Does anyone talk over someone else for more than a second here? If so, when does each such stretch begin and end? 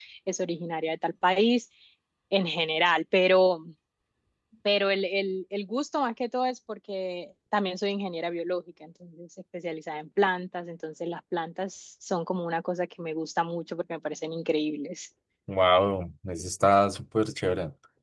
none

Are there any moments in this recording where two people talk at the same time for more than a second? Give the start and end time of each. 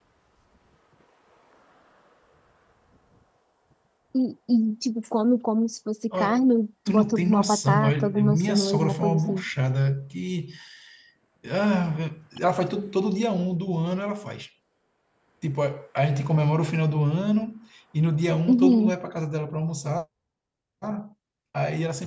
6.9-9.4

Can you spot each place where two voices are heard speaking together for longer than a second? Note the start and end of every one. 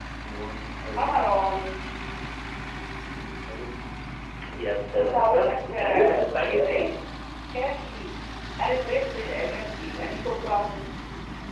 4.9-6.7

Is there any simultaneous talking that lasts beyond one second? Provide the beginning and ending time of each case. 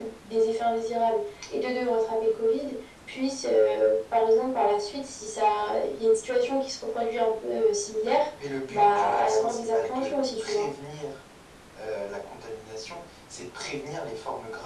8.7-10.7

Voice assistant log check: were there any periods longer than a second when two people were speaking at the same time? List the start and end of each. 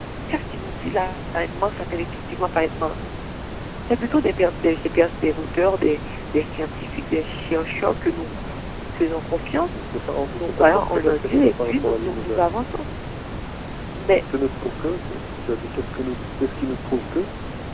10.3-12.4

